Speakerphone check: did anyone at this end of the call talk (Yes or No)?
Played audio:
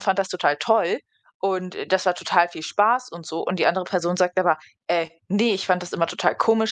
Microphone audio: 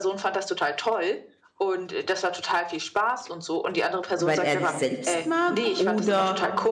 Yes